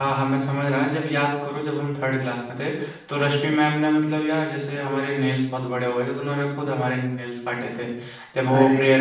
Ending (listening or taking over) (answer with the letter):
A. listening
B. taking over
A